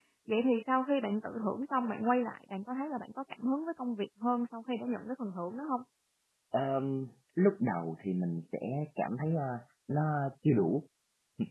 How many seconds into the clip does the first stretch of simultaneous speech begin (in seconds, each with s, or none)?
none